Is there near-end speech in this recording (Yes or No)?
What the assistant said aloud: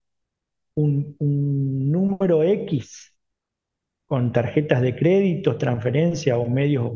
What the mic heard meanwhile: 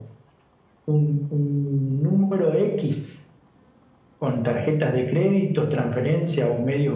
No